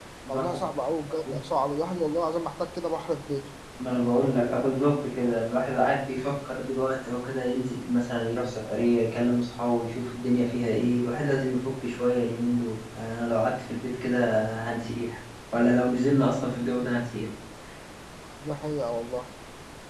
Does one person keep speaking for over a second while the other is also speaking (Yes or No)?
No